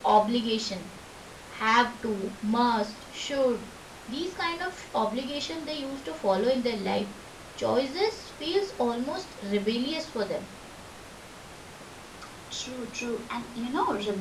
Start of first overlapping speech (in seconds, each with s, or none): none